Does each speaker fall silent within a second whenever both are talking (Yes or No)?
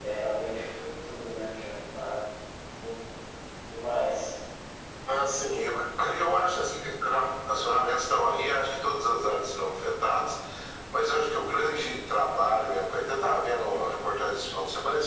Yes